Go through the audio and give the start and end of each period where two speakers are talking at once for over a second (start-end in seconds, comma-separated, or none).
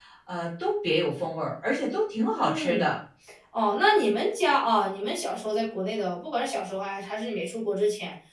none